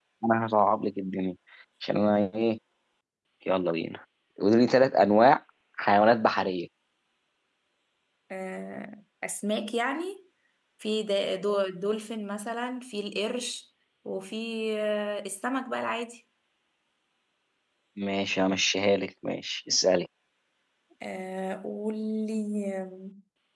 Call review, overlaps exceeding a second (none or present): none